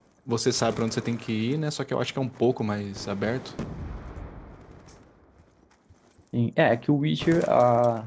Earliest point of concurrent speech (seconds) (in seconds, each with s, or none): none